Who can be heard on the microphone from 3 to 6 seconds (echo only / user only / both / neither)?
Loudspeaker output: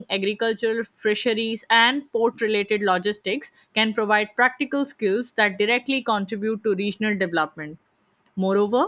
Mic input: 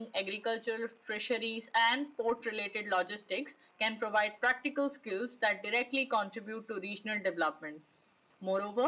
echo only